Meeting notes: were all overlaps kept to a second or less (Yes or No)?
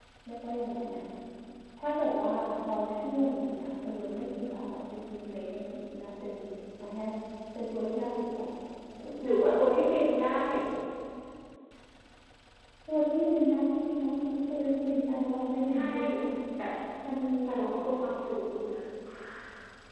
Yes